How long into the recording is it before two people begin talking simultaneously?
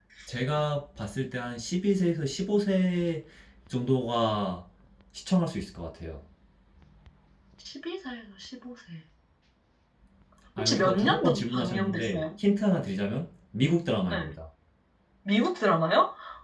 11 s

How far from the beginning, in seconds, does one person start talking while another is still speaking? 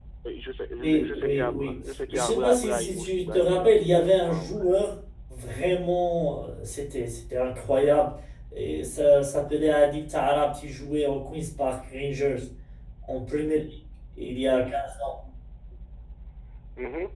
1 s

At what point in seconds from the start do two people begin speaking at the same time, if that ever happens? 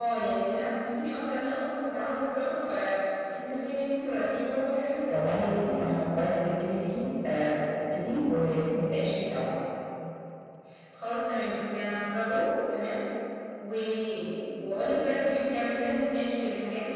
5 s

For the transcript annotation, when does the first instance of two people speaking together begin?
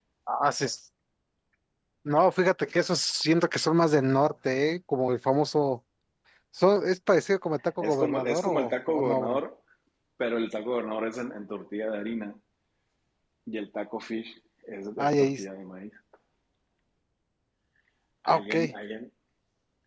8 s

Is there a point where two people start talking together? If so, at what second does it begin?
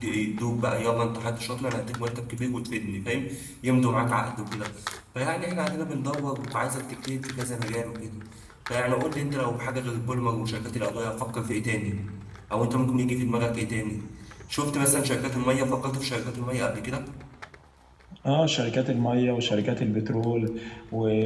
none

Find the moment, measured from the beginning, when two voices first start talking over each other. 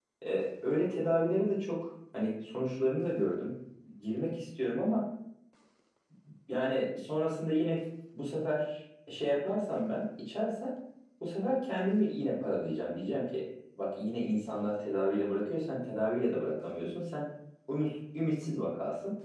none

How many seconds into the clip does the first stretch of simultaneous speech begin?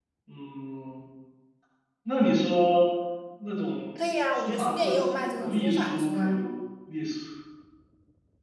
4 s

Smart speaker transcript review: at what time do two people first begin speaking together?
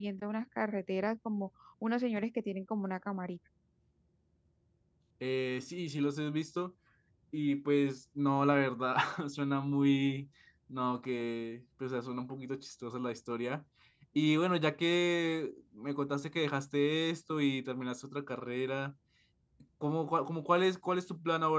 none

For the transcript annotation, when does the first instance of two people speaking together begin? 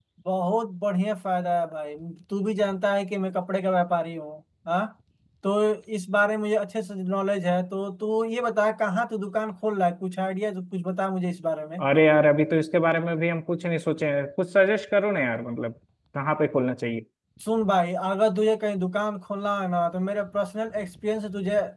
none

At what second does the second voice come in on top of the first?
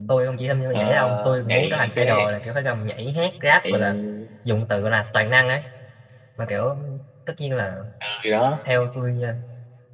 1 s

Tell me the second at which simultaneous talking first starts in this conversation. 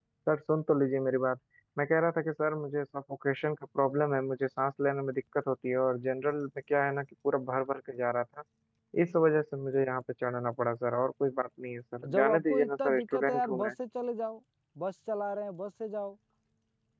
12 s

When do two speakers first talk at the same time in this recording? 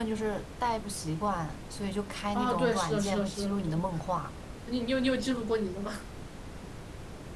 2 s

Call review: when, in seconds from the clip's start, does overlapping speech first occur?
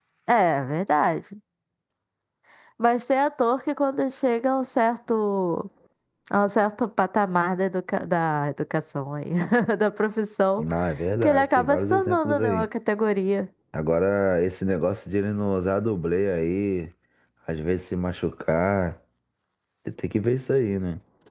11 s

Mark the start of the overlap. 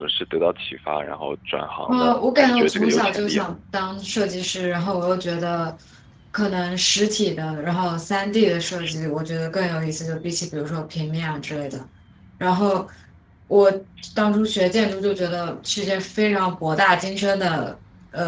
2 s

